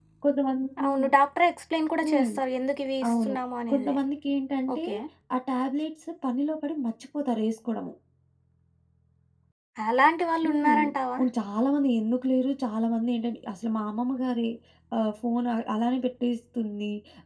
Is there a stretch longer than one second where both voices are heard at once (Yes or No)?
No